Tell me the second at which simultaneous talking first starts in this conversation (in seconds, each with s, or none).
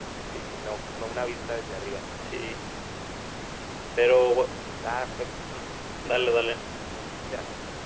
none